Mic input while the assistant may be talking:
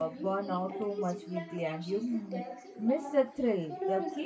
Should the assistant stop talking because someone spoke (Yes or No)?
Yes